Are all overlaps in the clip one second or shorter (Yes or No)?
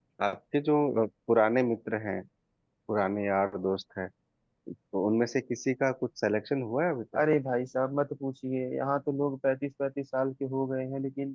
Yes